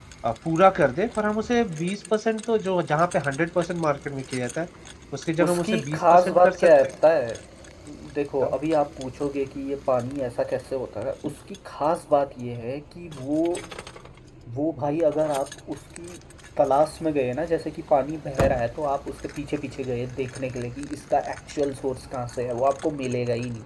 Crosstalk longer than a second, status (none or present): present